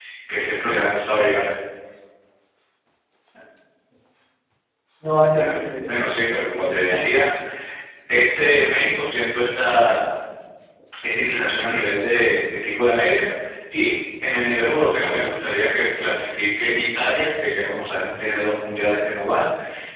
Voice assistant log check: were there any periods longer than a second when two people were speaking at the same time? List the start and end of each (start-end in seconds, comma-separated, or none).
5.3-7.1